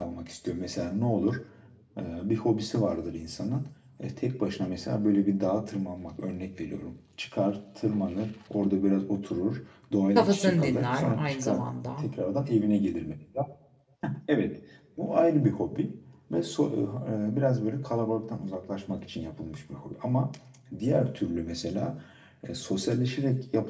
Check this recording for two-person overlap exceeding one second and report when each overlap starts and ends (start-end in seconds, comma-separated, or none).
10.2-11.6